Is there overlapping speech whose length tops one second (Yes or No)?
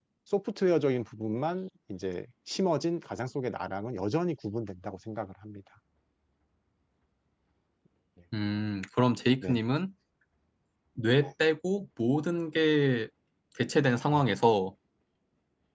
No